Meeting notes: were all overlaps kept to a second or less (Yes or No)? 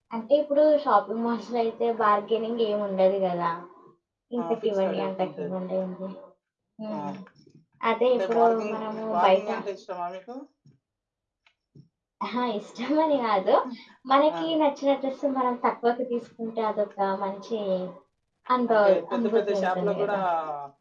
No